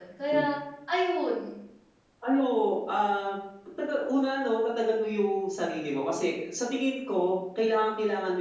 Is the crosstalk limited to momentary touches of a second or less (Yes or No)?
Yes